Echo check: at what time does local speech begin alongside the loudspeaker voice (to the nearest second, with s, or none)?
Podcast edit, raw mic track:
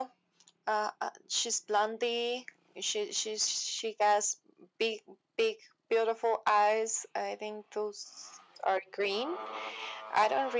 none